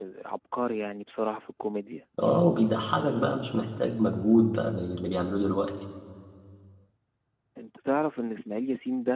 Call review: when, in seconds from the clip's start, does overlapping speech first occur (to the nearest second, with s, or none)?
none